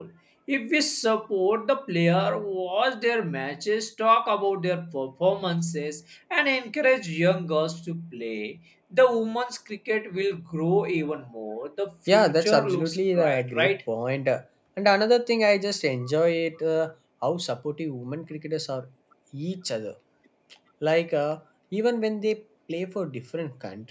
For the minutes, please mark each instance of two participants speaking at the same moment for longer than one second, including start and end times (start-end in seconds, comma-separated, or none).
12.1-13.8